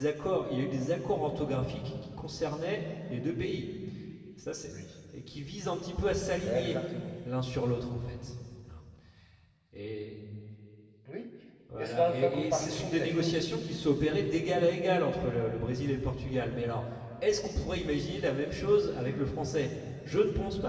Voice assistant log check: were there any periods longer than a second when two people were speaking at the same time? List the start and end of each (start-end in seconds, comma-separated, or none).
11.8-13.4